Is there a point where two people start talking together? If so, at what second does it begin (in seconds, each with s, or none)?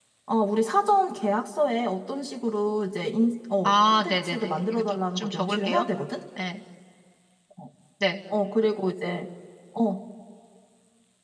3.6 s